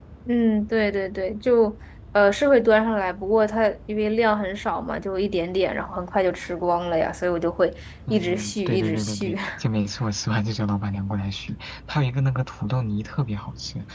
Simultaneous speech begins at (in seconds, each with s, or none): 8.1 s